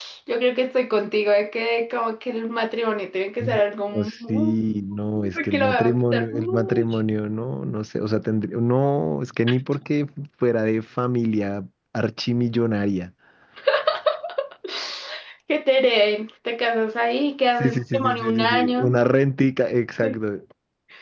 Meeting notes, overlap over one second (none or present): present